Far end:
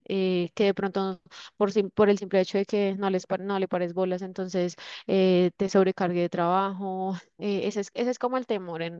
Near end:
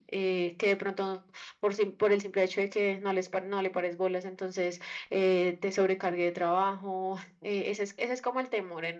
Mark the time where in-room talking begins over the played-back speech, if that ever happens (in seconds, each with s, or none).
none